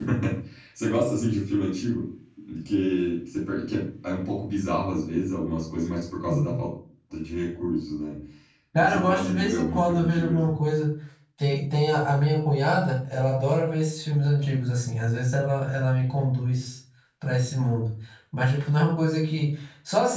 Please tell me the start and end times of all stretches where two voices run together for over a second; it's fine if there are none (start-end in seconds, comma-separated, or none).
8.8-10.5